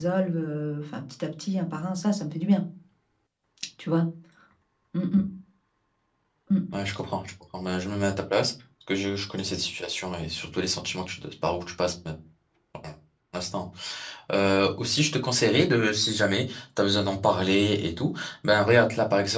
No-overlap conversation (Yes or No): Yes